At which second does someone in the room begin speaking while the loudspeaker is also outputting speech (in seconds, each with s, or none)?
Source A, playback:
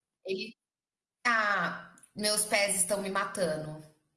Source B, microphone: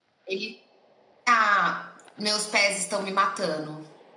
none